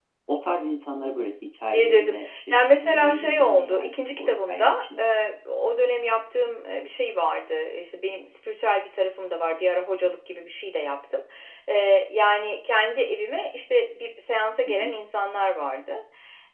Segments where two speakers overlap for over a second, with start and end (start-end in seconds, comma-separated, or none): 1.7-5.0